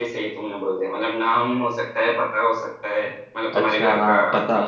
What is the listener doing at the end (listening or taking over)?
taking over